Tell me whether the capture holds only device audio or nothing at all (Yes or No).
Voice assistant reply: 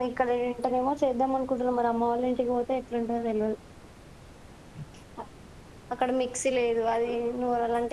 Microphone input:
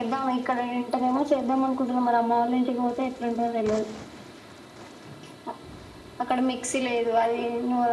Yes